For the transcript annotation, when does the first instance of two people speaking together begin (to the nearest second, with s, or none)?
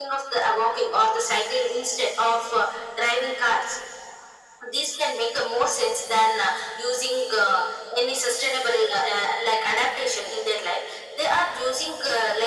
none